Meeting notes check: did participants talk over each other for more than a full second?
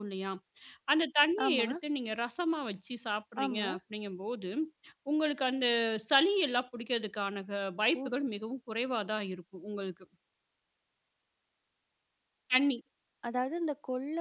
No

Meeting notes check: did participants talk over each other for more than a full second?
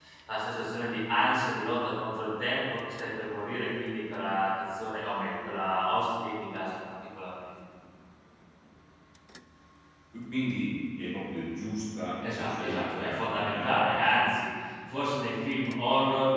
Yes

